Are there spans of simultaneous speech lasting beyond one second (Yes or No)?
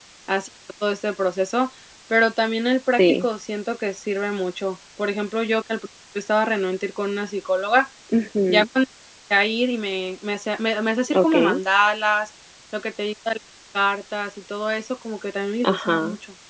No